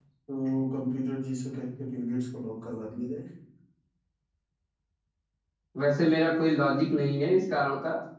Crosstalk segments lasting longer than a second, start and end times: none

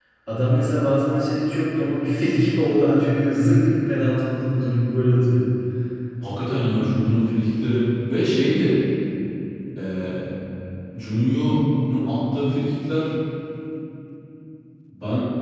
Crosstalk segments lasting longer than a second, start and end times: none

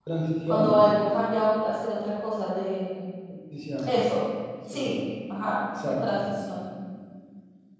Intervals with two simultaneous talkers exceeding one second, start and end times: none

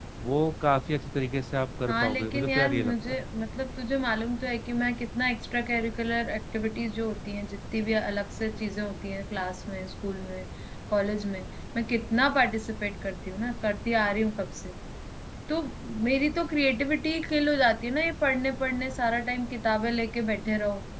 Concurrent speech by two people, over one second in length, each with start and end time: 1.9-3.2

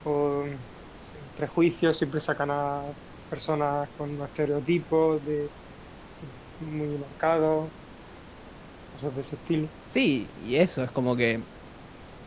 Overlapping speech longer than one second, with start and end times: none

